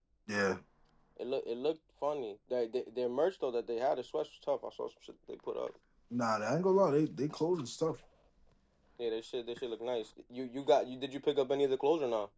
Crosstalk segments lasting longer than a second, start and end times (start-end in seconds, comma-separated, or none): none